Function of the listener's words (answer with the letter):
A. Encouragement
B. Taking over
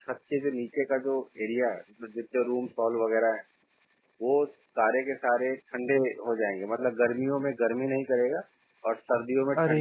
B